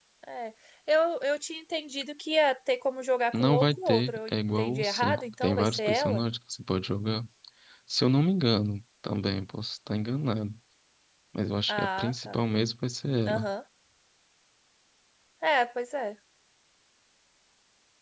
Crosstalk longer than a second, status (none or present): present